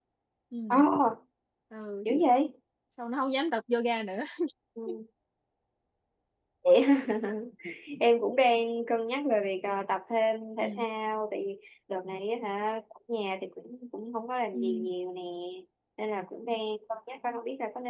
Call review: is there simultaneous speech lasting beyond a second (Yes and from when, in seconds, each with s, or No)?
No